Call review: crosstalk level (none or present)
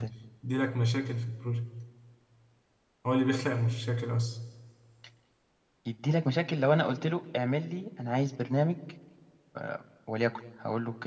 none